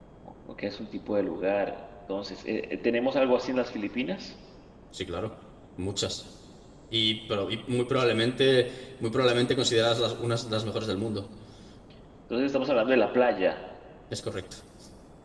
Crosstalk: none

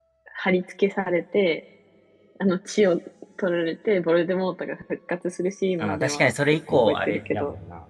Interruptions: present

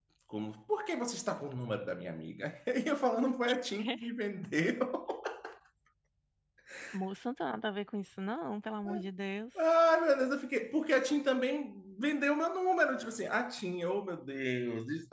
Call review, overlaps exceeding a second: none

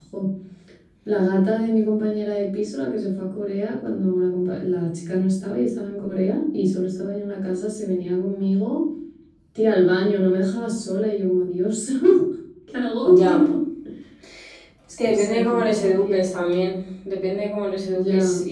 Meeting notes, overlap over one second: present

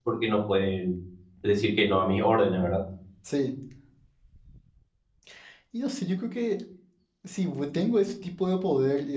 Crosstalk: none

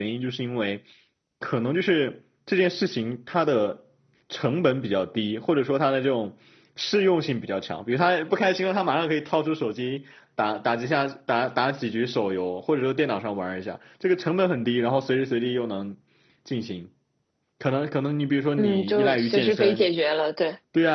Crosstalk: present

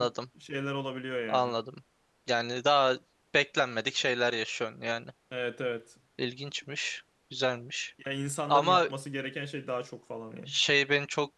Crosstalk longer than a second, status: none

